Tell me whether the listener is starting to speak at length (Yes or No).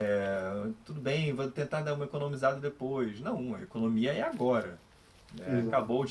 No